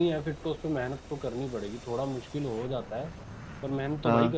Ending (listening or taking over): listening